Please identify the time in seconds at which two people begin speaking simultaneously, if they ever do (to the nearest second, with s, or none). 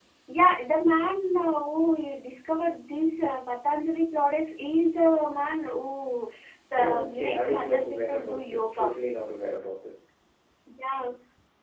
7 s